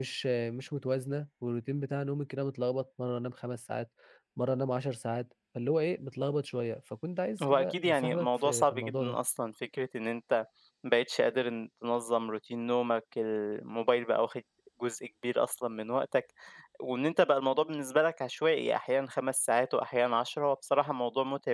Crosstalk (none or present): present